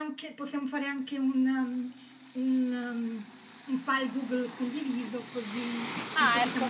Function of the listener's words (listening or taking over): listening